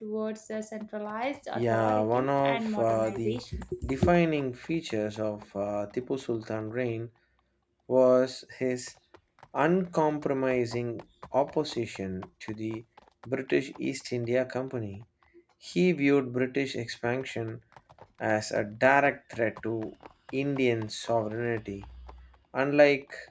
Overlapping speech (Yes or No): Yes